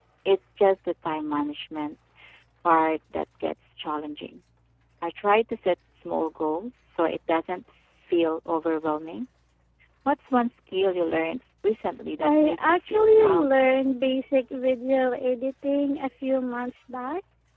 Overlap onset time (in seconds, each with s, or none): 12.2 s